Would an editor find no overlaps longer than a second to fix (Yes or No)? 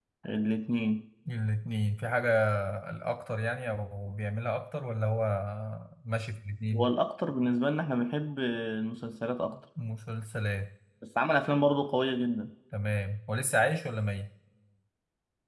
Yes